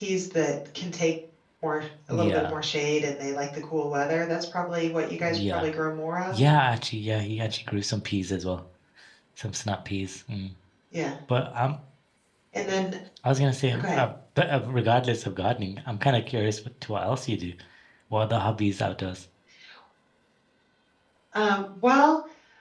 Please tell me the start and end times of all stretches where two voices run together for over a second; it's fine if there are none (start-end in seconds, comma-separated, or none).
none